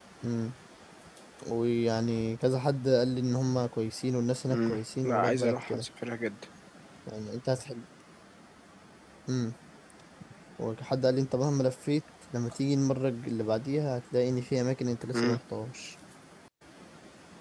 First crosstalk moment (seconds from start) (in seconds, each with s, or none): 4.5 s